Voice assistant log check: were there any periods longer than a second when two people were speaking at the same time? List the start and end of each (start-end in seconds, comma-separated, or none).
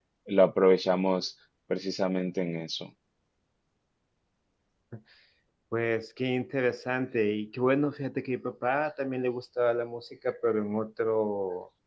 none